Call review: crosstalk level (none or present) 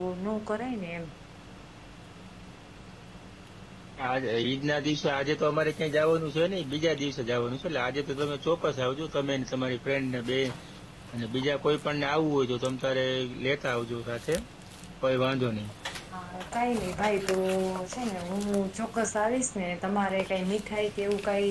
none